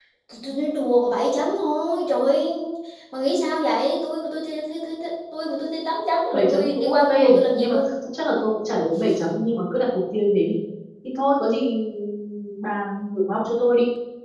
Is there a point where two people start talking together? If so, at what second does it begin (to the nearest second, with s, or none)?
6 s